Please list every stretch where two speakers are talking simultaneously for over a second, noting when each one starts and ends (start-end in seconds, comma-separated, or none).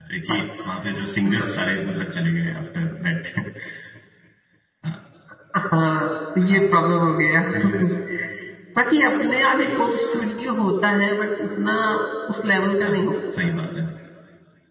none